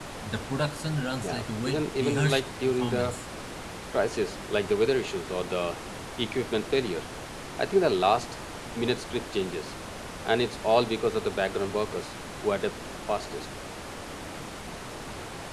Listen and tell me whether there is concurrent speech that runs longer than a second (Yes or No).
Yes